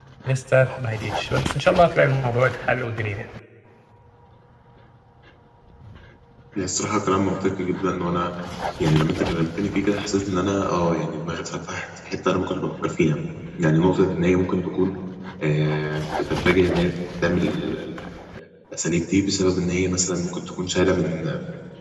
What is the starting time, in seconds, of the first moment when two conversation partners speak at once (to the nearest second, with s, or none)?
none